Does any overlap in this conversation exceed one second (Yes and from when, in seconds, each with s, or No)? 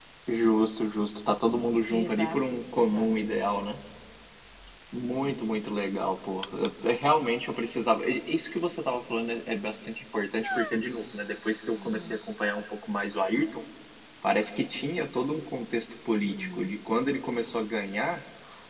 Yes, from 1.9 s